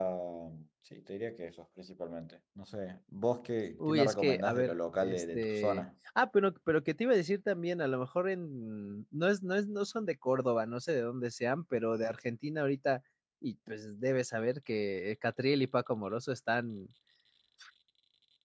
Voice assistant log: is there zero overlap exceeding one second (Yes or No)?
No